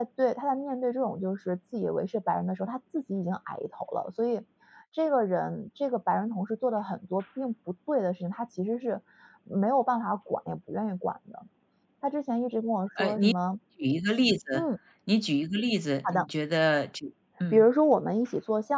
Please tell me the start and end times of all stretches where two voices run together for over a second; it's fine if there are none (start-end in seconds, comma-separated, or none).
none